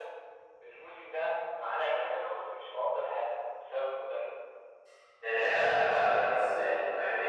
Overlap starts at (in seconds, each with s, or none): none